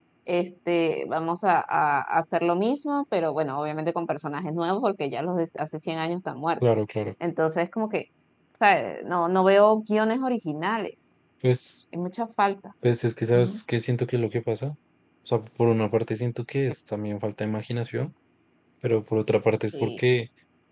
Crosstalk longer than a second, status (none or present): none